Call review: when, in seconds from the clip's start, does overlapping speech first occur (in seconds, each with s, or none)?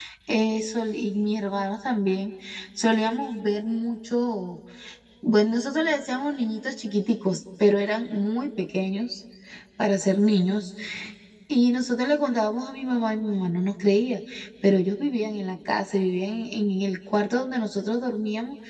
none